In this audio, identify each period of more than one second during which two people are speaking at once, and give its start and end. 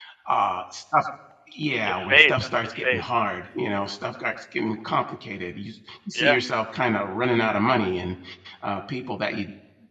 1.9-3.2

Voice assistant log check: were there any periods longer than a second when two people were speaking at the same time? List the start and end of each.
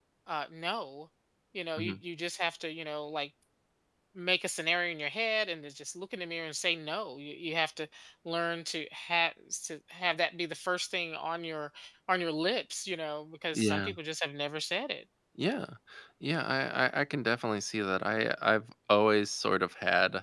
none

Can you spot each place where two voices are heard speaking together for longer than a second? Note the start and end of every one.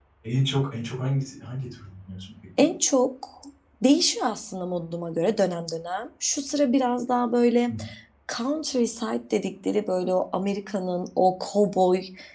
none

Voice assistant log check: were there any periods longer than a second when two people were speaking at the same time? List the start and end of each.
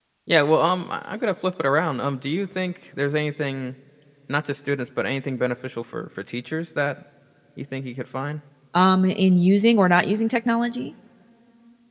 none

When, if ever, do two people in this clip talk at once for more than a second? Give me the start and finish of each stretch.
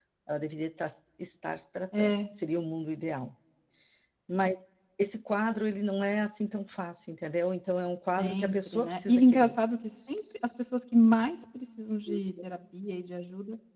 8.2-9.6

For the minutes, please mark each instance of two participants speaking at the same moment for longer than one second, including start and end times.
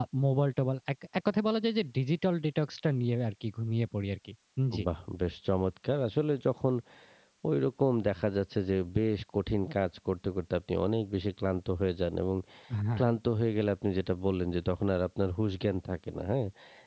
none

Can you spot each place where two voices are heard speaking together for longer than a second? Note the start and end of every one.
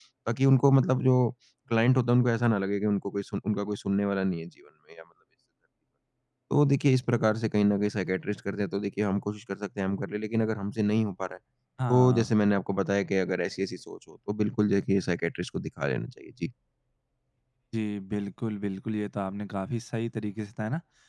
none

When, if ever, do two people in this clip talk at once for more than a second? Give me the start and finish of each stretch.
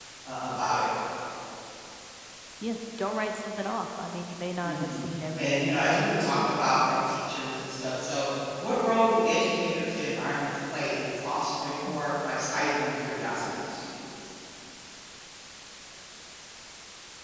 5.4-6.6

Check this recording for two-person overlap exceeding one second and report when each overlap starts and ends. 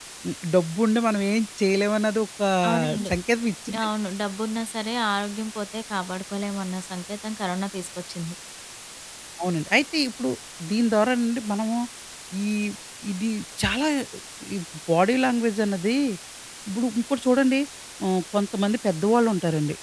none

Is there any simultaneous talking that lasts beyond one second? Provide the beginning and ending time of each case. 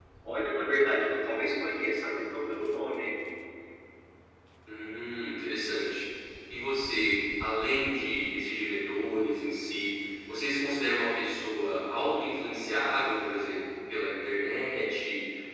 none

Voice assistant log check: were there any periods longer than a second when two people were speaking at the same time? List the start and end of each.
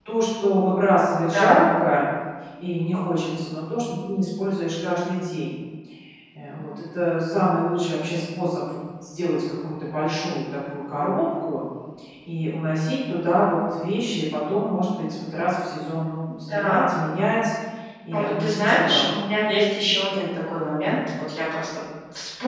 18.1-19.4

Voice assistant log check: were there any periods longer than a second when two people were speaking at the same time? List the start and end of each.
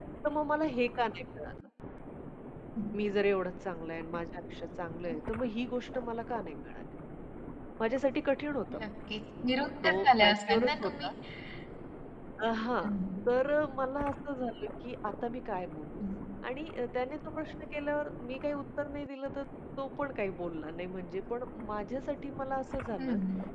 9.8-11.1

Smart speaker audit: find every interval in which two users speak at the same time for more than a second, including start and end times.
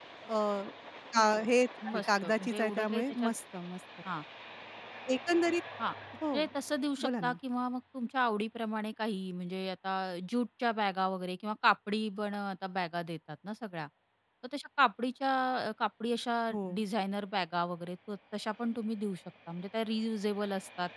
1.9-3.3

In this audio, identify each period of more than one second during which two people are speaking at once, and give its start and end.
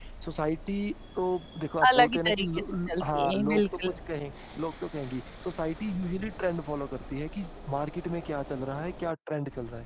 1.9-3.9

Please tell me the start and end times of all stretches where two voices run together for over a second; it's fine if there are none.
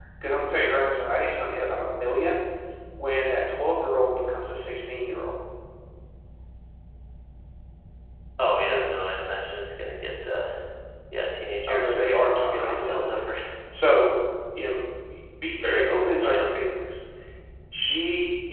11.7-13.2

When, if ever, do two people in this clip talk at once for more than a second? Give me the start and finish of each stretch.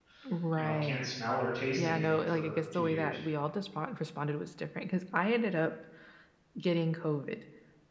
1.8-3.2

